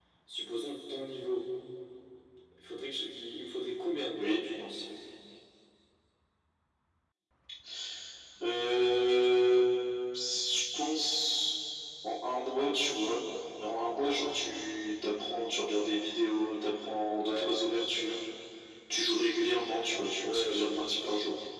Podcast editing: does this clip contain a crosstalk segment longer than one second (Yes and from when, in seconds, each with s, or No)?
No